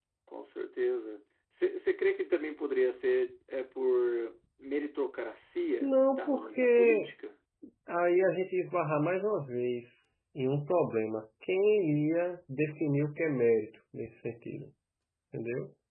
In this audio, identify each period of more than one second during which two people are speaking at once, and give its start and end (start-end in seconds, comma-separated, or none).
5.8-7.1